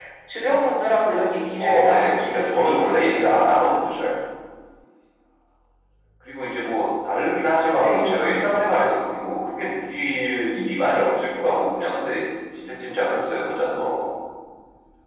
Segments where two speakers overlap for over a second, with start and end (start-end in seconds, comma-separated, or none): 1.6-3.3